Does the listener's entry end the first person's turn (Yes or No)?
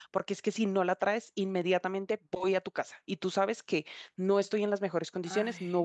No